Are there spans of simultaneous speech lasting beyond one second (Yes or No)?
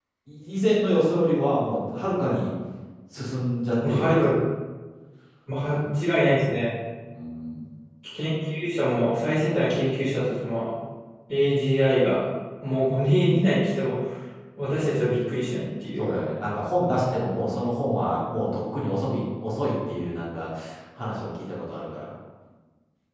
No